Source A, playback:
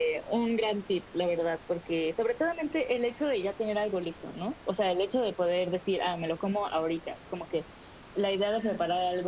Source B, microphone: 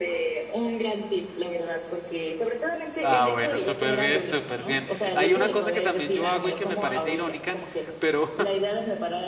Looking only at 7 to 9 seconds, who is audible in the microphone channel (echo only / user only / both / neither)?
both